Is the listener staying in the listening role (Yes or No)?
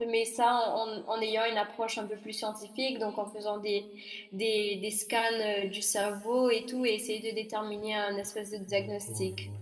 No